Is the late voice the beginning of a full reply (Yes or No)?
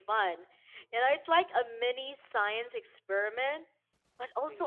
No